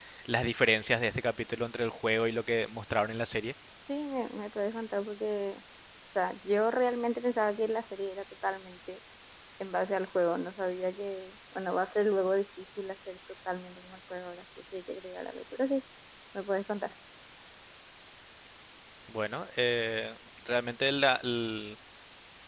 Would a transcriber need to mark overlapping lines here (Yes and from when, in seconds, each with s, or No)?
No